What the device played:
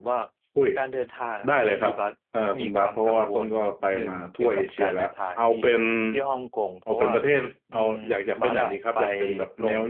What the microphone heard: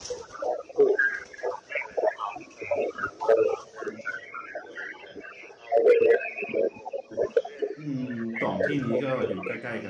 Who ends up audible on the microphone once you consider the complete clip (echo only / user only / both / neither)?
both